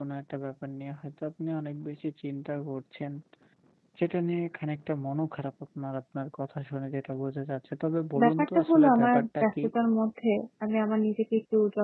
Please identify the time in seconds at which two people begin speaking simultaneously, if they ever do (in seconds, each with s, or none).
8.2 s